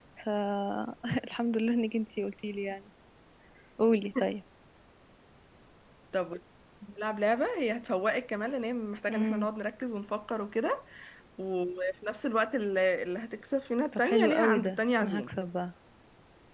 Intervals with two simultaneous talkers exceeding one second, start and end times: 13.9-15.3

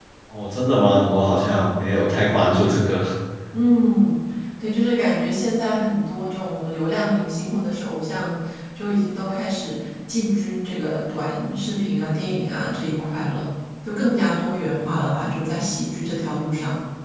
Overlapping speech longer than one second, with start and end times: none

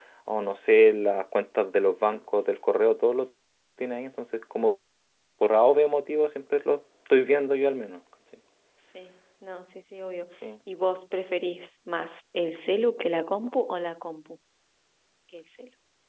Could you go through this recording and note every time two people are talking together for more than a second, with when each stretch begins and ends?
none

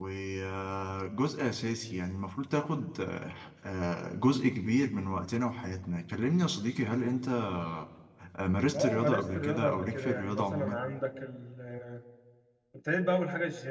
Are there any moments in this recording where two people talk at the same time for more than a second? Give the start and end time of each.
8.8-10.8

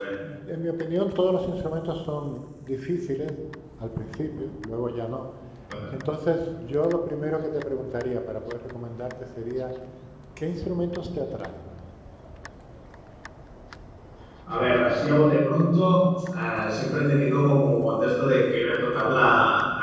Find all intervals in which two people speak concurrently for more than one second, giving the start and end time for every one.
none

